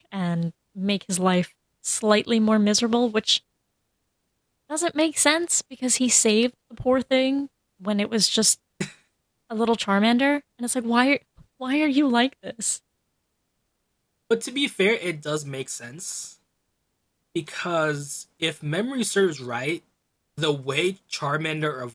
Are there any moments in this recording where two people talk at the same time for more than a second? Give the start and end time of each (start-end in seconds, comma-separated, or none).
none